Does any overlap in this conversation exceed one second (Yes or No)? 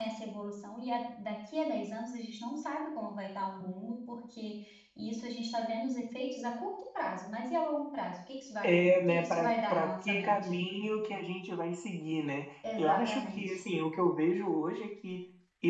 Yes